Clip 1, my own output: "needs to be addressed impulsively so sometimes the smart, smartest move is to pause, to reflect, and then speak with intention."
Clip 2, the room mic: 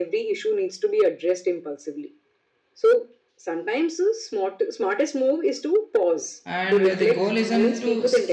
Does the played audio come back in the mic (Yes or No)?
Yes